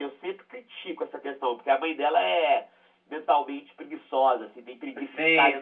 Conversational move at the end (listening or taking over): listening